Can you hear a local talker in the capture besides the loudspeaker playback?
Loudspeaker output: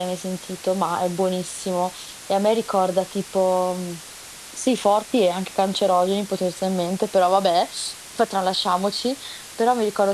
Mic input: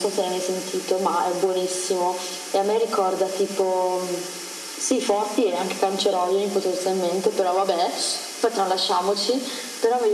No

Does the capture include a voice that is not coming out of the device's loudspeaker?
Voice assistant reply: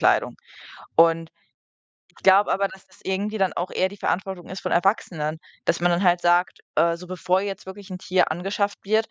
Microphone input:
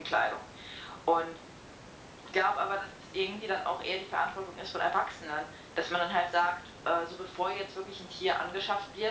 No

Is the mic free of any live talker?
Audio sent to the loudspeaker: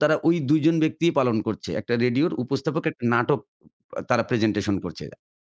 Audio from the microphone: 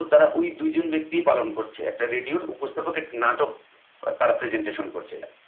Yes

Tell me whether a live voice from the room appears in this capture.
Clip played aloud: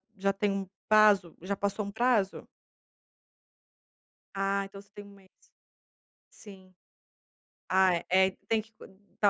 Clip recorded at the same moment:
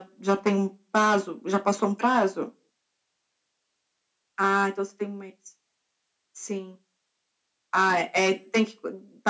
No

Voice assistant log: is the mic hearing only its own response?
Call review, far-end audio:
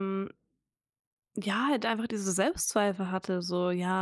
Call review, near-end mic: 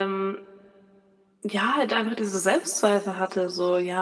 Yes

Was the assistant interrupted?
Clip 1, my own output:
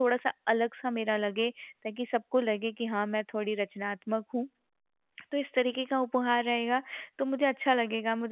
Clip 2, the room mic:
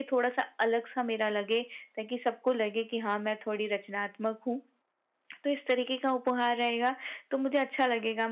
No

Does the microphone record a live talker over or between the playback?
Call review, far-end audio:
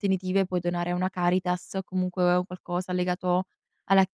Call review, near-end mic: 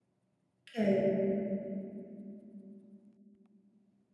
Yes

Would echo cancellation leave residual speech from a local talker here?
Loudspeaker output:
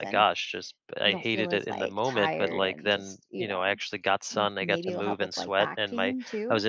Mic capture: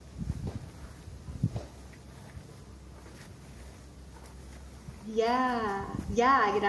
Yes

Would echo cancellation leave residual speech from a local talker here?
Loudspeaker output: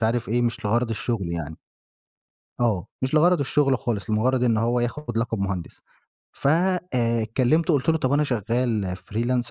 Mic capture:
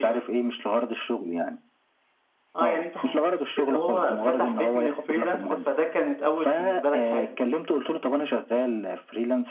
Yes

